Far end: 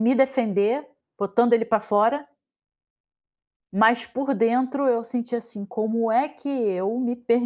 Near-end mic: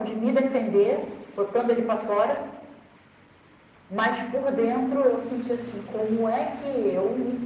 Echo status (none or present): present